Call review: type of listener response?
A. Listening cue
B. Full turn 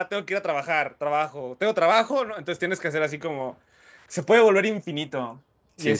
A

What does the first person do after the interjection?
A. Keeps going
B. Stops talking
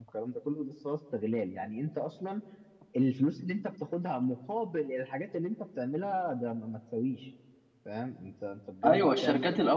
B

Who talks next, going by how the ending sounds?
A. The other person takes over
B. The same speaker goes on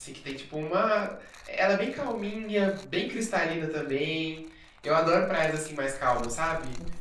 B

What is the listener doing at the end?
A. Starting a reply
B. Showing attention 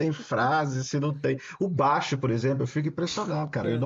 B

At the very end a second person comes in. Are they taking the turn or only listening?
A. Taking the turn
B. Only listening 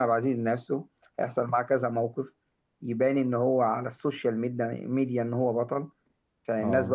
B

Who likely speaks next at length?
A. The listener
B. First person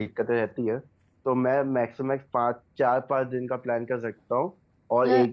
B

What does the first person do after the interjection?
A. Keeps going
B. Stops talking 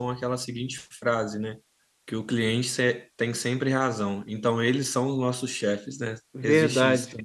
B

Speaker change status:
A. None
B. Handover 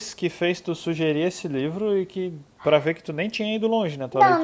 B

